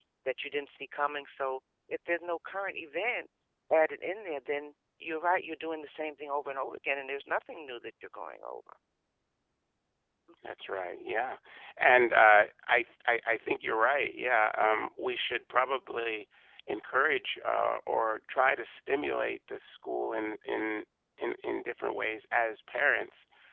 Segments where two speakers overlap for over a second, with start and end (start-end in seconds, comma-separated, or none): none